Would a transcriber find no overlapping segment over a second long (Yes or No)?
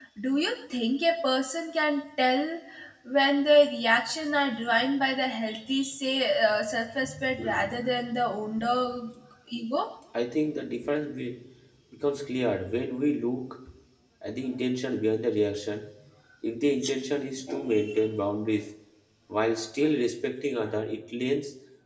Yes